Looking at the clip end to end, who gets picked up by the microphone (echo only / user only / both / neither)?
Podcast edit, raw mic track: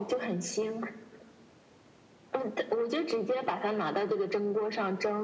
echo only